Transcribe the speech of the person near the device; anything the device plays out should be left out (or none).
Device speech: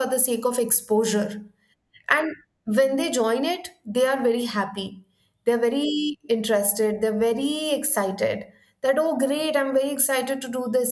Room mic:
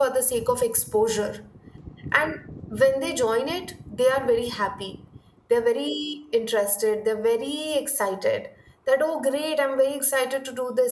none